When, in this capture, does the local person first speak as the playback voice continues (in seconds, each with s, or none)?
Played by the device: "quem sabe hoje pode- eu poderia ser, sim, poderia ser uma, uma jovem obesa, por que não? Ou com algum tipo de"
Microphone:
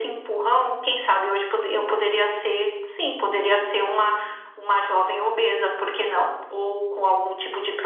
none